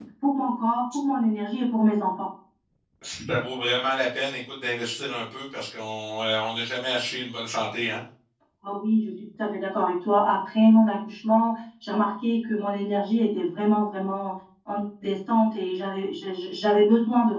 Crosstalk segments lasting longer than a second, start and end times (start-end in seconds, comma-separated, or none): none